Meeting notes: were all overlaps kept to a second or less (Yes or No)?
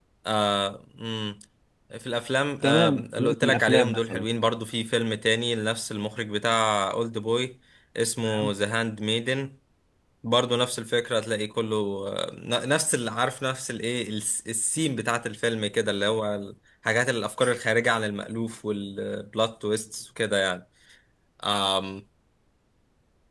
No